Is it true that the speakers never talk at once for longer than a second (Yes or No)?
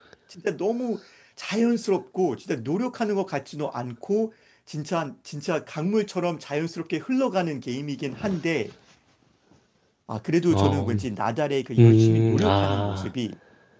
No